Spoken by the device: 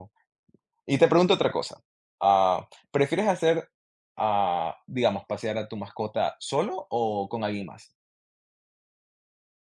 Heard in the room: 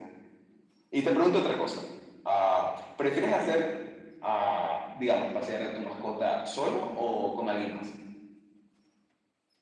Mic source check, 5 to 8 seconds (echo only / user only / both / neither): echo only